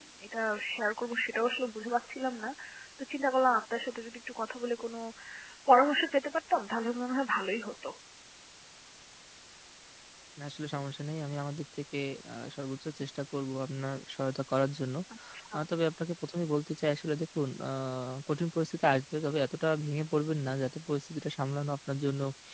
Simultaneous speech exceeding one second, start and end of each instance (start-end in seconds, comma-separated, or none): none